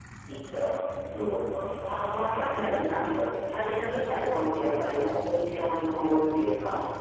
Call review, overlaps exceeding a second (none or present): present